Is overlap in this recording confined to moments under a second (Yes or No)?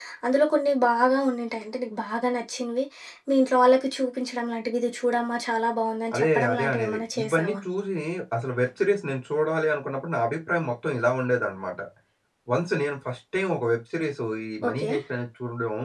No